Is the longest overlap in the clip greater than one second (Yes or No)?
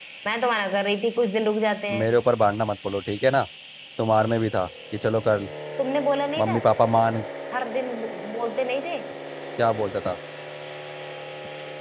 No